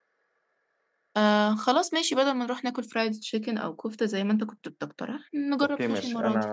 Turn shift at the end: Yes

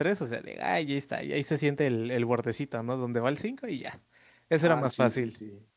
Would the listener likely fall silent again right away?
No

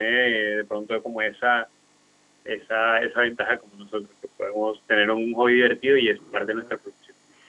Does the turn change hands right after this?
Yes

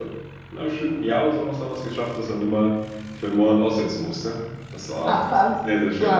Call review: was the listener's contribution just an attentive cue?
No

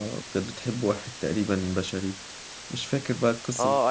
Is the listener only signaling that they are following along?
No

